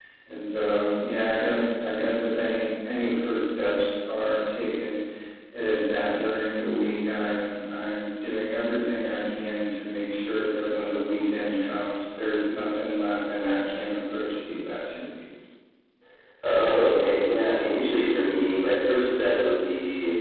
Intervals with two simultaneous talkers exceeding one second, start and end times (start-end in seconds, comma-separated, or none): none